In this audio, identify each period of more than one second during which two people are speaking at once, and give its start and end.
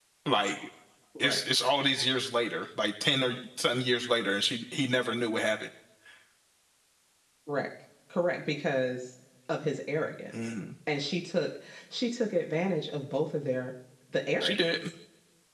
none

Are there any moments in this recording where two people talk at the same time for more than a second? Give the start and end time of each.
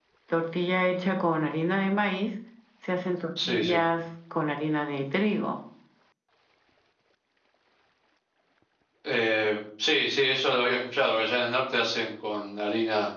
none

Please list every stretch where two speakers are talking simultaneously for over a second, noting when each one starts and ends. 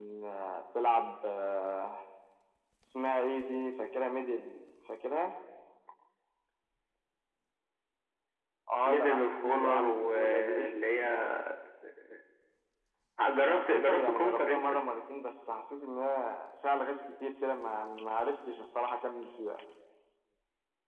8.8-10.6, 13.5-14.8

